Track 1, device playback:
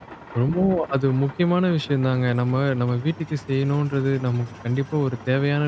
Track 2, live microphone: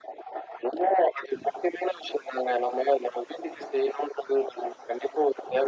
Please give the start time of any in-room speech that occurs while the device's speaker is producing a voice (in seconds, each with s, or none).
none